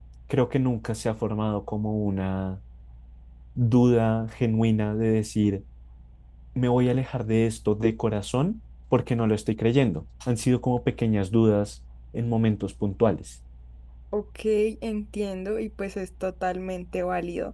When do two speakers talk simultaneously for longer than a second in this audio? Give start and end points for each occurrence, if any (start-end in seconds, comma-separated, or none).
none